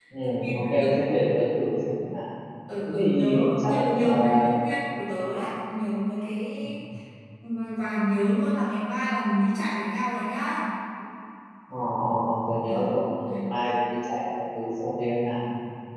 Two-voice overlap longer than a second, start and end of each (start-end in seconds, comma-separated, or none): 2.9-4.4